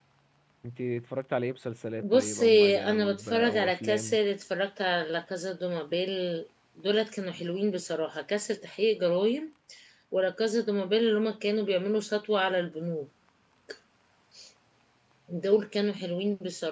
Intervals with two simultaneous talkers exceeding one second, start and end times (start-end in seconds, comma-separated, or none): 2.0-4.2